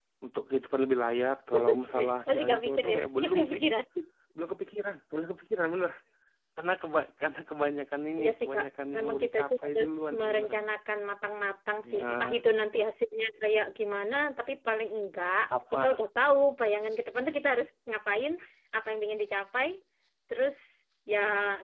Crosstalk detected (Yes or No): Yes